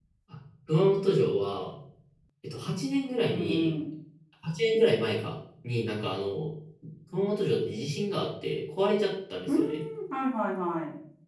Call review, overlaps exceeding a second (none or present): none